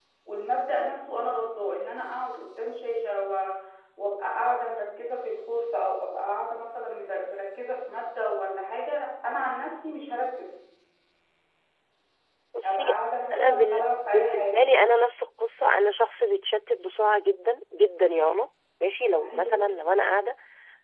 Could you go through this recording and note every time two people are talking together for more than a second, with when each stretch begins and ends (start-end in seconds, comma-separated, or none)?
13.3-14.6